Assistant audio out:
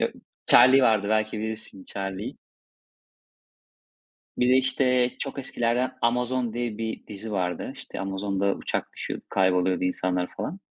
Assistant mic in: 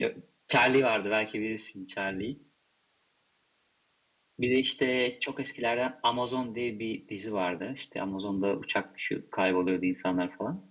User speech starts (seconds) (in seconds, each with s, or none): none